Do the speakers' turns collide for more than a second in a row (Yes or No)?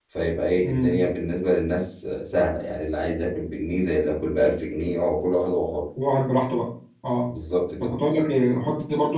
No